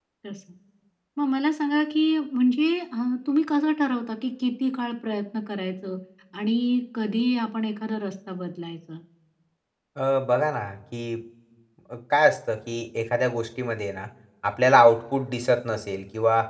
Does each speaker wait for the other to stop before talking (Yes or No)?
Yes